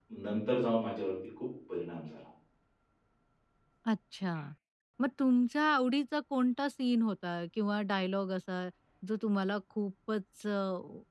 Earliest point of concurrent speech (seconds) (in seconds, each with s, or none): none